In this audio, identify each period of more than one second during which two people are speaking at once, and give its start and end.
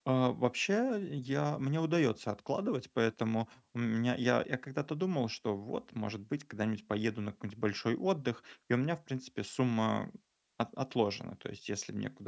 none

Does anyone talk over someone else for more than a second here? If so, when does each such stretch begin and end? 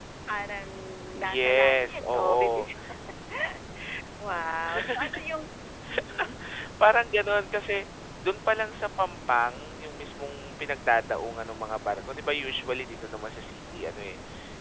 1.2-2.7

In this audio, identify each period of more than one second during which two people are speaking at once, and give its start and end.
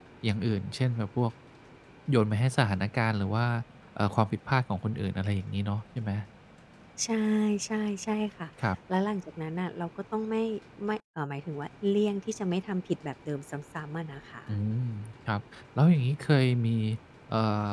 none

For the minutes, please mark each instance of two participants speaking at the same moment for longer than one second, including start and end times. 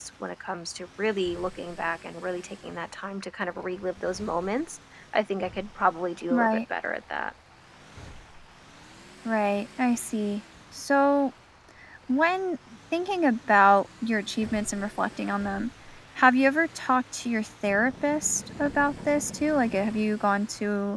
none

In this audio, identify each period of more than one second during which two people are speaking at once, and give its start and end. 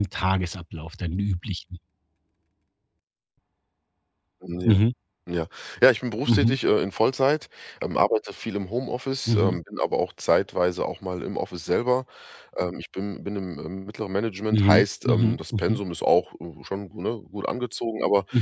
14.5-15.8

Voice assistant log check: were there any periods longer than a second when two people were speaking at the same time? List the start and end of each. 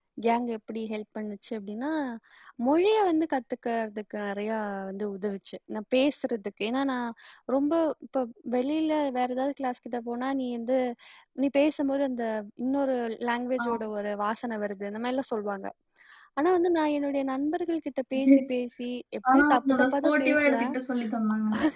19.3-20.7

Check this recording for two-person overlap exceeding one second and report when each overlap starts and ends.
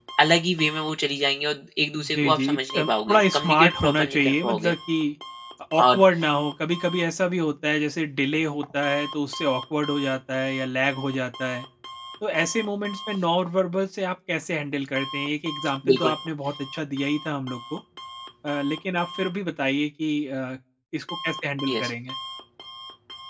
2.0-4.8

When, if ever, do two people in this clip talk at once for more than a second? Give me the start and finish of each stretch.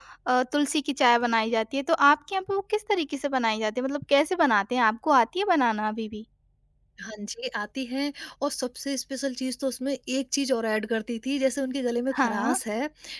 none

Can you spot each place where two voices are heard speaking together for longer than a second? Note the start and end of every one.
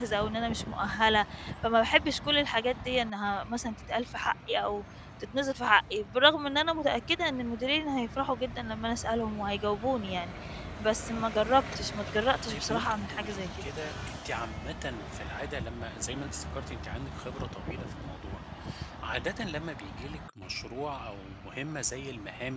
12.5-13.7

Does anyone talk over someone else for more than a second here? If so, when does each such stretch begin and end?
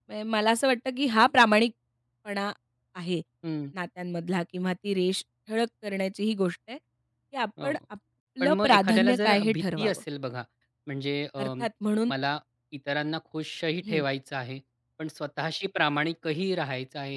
8.4-10.0

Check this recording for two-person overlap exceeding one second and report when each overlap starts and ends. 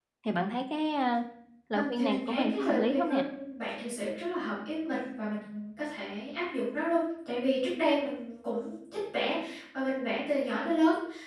1.7-3.2

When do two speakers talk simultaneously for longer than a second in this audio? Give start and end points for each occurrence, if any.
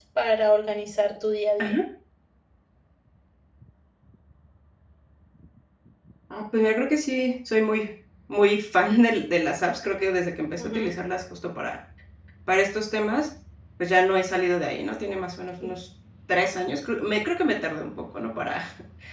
none

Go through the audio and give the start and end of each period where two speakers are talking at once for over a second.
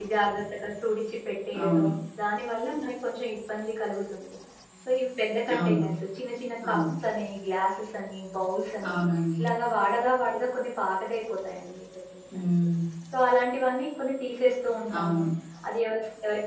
none

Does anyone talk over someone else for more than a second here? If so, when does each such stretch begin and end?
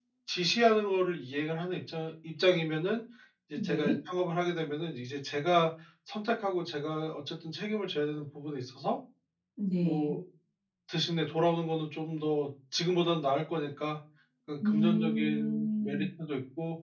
14.6-16.0

